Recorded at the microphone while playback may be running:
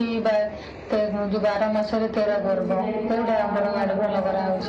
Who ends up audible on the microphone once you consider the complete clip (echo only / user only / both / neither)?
both